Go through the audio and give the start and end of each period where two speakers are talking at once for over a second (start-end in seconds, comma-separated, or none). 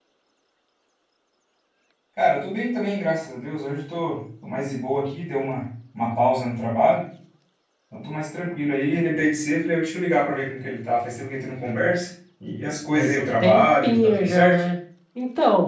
12.9-14.6